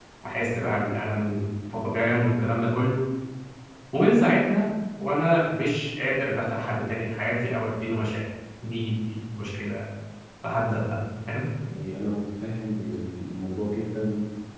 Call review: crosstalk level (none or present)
none